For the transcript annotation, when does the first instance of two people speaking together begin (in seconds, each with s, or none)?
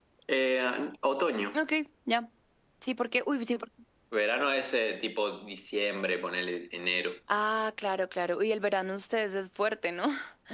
none